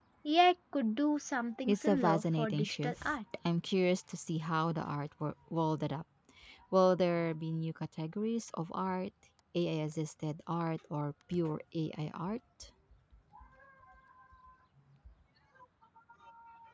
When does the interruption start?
1.7 s

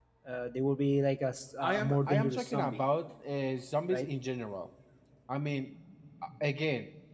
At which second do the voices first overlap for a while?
1.6 s

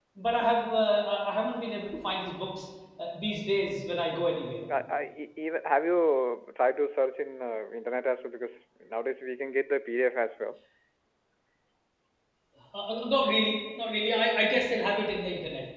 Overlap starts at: none

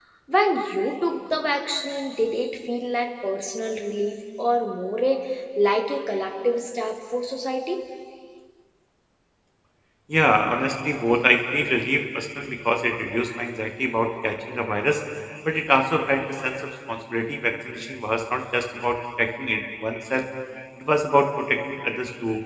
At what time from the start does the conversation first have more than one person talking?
none

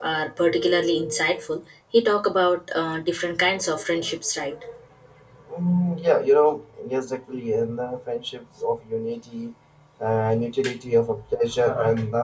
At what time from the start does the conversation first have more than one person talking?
none

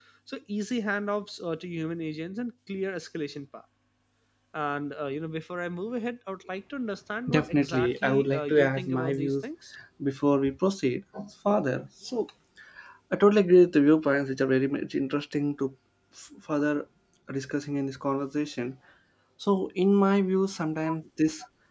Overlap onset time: 7.3 s

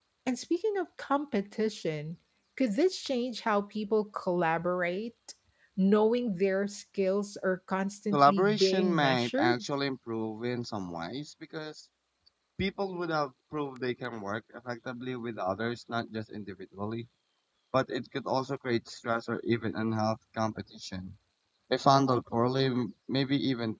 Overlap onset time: 8.1 s

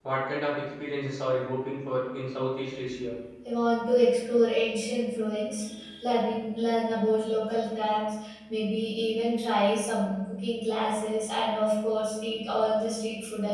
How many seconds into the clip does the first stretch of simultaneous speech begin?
none

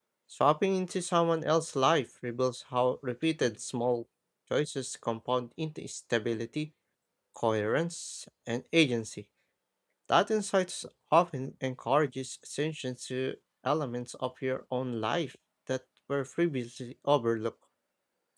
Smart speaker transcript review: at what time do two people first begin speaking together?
none

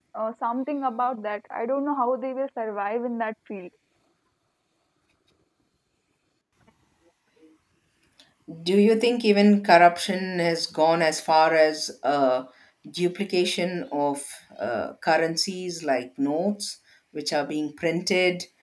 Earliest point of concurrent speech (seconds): none

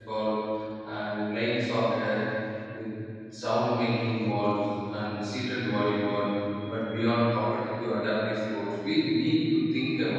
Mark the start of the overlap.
none

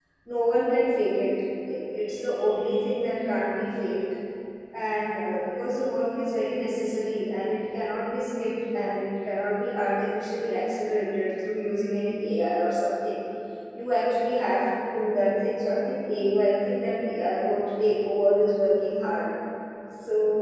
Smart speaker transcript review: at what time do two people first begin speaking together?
none

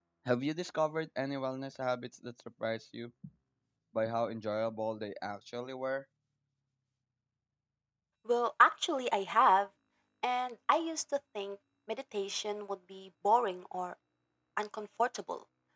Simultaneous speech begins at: none

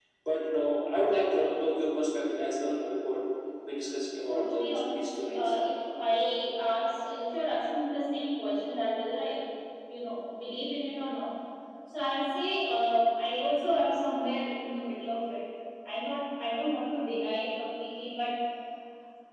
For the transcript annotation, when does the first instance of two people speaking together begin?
4.3 s

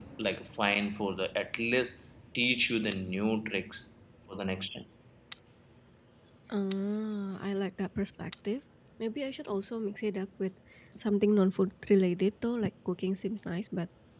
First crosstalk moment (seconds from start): none

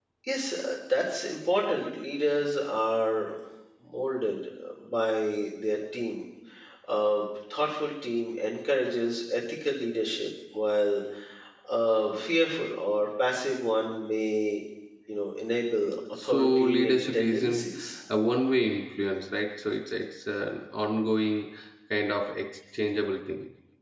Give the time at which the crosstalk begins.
16.2 s

